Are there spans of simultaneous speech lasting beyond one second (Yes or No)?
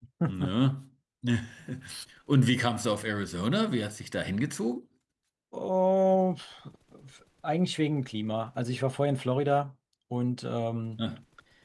No